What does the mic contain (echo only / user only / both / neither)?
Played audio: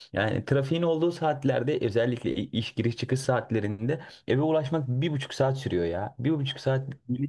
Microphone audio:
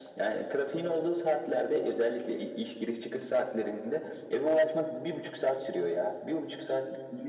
echo only